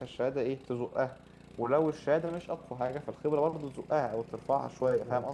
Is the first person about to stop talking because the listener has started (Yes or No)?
Yes